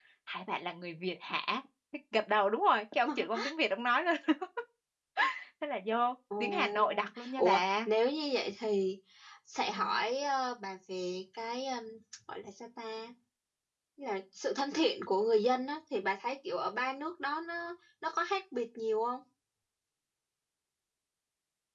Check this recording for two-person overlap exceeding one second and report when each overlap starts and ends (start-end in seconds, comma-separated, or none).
6.4-7.9